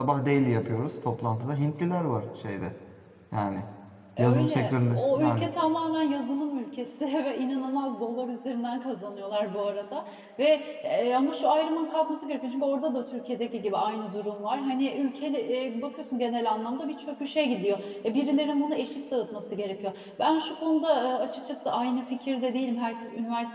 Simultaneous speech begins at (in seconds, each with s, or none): 4.2 s